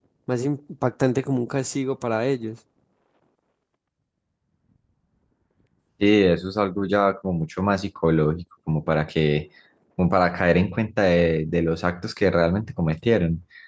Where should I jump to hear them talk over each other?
none

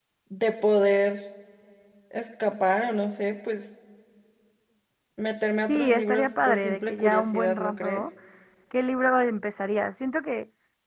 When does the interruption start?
5.7 s

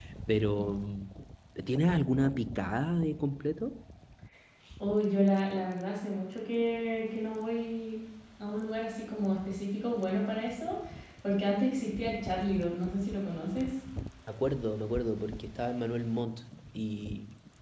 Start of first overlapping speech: none

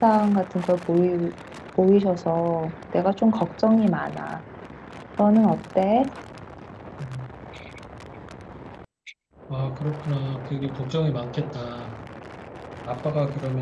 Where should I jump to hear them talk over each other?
none

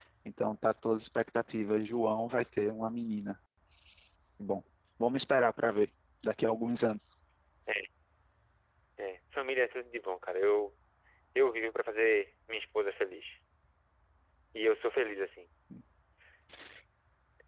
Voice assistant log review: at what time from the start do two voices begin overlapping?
none

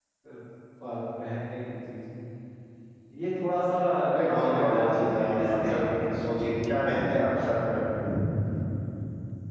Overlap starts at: 4.2 s

